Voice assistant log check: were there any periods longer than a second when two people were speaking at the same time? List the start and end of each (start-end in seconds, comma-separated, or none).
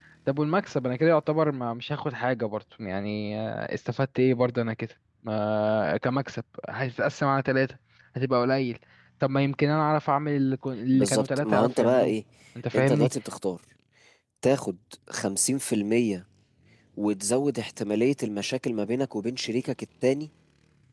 10.9-12.1